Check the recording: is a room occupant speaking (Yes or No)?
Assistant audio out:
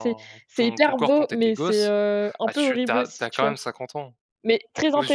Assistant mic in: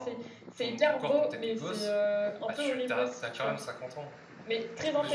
No